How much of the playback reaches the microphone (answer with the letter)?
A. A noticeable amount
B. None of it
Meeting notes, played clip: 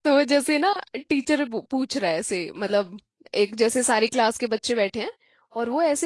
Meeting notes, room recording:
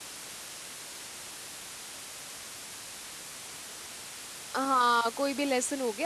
B